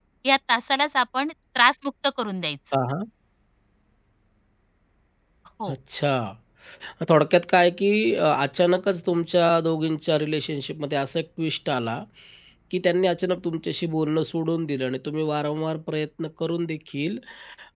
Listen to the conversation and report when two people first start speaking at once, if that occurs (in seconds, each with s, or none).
none